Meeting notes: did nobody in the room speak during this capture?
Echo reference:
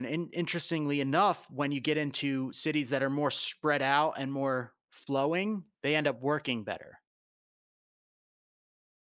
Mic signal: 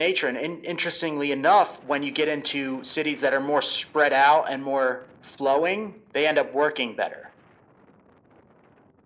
Yes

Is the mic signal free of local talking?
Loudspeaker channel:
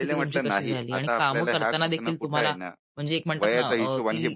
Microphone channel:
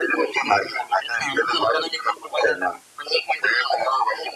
Yes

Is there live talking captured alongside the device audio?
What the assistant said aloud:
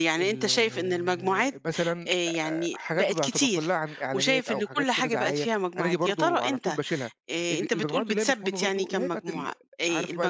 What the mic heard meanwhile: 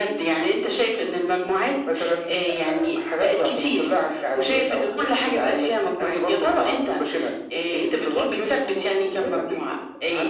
No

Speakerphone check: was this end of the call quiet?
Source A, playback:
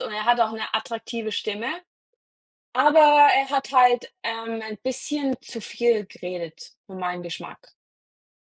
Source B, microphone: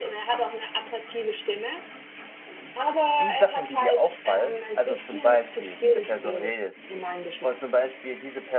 No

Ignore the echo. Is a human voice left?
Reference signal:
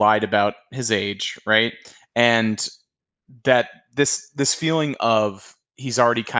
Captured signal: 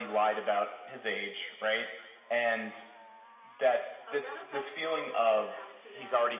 Yes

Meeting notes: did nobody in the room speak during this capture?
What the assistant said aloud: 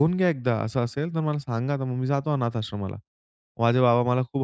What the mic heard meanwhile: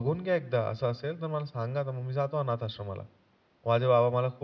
Yes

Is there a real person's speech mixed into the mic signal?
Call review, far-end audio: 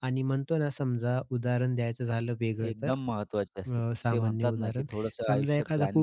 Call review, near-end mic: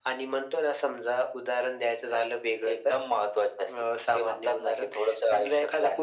No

